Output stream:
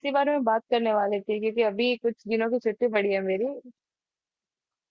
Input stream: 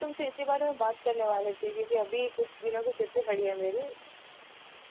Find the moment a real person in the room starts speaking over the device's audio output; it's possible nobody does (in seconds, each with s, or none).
none